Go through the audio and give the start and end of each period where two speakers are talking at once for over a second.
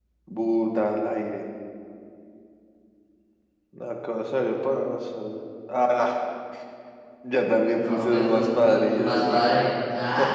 7.7-9.5

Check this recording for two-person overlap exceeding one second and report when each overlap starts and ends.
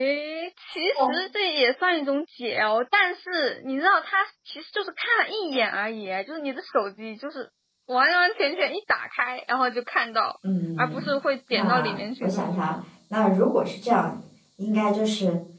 11.5-12.7

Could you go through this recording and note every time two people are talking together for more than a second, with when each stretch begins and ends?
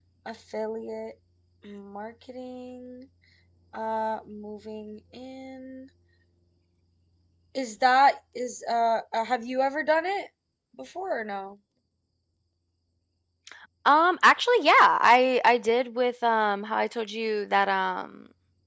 none

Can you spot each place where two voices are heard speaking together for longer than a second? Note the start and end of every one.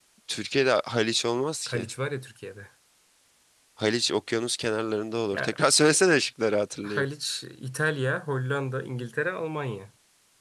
none

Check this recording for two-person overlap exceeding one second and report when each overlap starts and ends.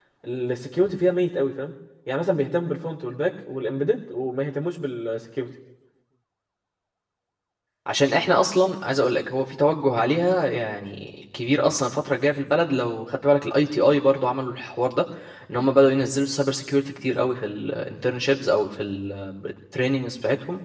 none

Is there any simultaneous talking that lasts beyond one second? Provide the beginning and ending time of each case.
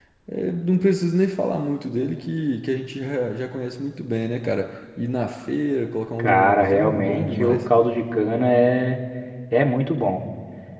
6.2-7.6

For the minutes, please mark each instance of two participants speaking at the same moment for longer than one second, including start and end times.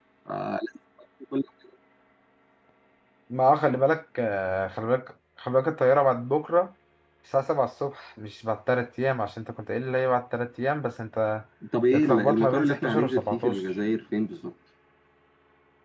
11.9-13.6

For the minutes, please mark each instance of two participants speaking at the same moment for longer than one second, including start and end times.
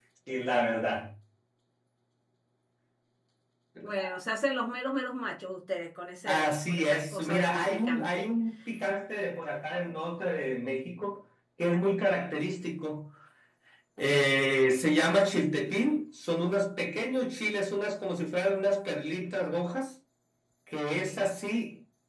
6.3-8.3

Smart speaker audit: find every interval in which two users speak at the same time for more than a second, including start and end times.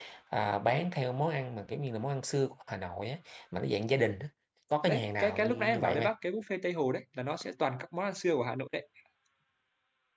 4.8-6.1

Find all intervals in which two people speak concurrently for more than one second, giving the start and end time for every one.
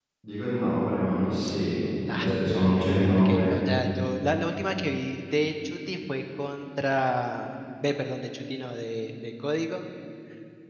2.2-3.5

